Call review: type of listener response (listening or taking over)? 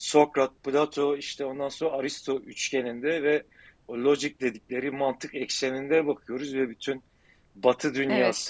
listening